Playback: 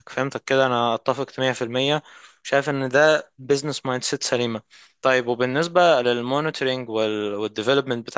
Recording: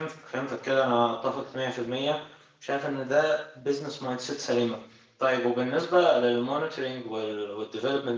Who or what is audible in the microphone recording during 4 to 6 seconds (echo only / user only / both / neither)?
echo only